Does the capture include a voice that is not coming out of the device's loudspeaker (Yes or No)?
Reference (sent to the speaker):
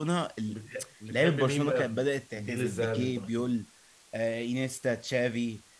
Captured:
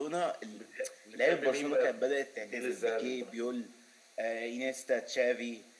No